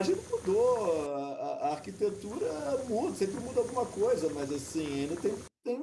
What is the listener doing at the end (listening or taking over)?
listening